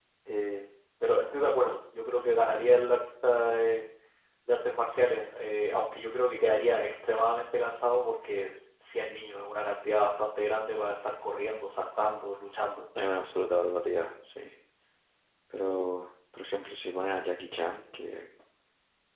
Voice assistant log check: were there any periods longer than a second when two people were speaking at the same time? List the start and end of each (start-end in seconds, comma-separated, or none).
none